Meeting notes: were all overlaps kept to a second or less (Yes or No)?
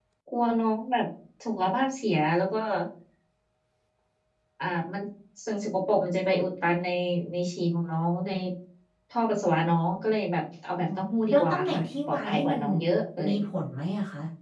No